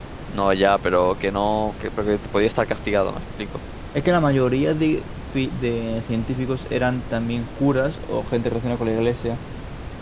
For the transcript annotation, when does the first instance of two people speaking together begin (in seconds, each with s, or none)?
none